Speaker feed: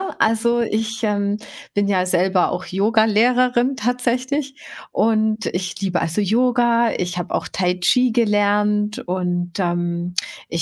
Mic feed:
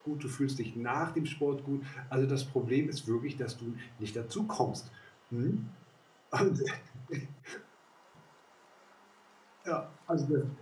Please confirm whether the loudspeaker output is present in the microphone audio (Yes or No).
No